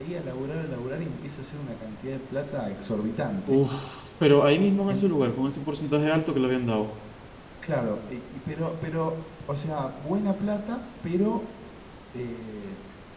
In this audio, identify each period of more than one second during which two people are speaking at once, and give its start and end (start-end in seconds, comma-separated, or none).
none